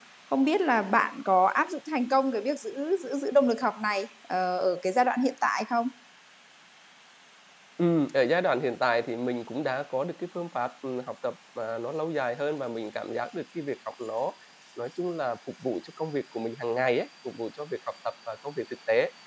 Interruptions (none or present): none